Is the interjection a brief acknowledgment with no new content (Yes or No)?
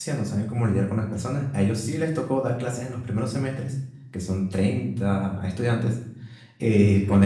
Yes